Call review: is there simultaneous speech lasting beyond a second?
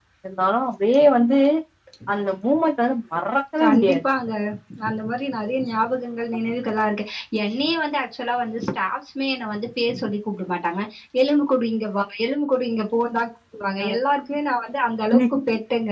No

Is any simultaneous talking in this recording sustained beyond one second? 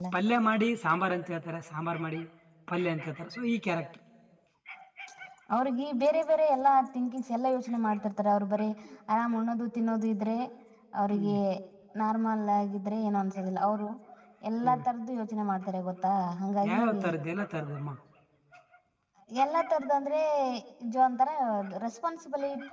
No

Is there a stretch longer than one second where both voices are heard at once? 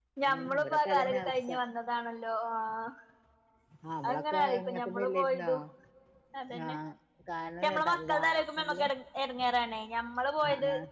Yes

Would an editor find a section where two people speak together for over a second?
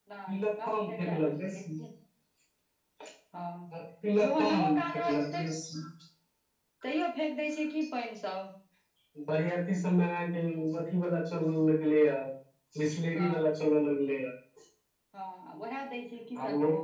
Yes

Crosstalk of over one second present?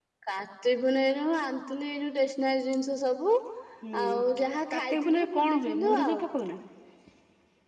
Yes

